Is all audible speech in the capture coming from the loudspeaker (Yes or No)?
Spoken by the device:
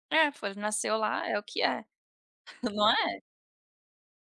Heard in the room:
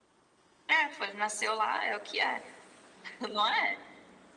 Yes